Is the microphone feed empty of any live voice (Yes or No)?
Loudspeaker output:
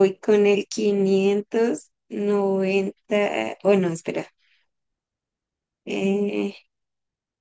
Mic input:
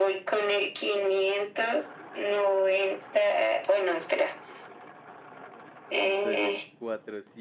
No